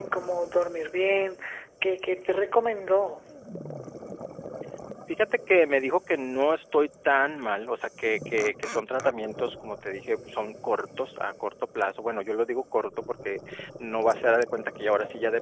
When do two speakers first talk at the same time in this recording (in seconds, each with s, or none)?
none